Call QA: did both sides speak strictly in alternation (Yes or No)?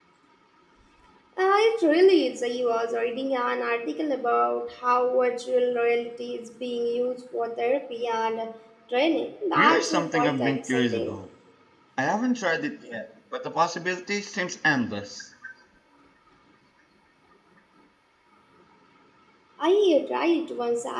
No